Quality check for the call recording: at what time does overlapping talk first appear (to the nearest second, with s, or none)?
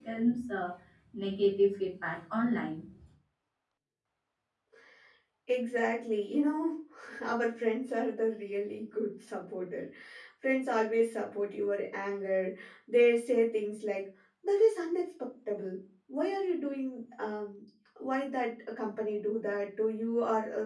none